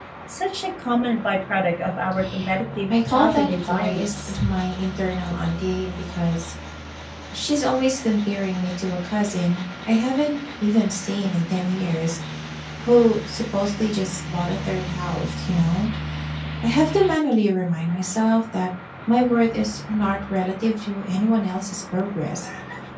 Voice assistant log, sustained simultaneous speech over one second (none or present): present